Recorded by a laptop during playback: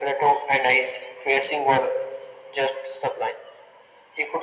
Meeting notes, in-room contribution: none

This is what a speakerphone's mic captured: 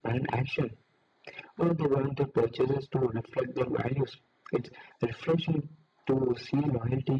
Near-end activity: none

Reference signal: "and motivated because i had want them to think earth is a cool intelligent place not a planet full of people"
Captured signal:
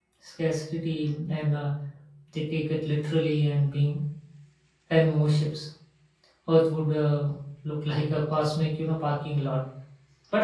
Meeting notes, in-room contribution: present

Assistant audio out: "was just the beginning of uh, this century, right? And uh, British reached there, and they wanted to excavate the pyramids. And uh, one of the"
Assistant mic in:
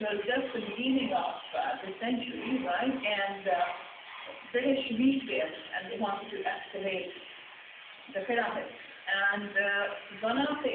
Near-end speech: none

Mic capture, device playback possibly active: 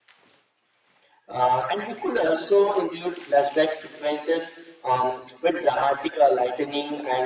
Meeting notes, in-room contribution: none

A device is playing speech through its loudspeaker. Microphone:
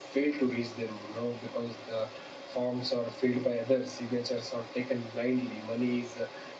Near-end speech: none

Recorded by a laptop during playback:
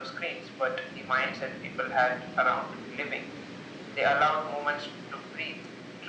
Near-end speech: none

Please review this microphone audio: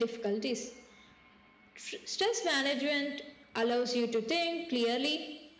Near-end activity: none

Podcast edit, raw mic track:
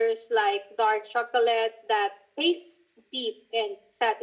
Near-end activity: none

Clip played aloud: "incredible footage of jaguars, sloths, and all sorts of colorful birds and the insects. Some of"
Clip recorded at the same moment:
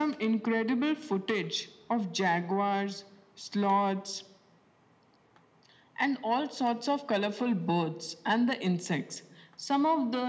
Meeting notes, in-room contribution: none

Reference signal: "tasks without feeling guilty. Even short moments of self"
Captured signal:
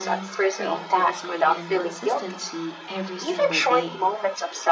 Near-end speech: present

